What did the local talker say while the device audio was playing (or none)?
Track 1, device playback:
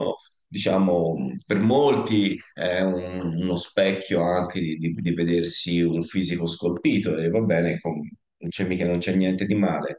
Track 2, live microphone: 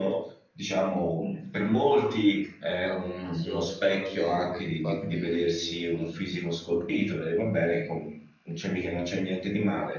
Ah, ass- assolutamente, infatti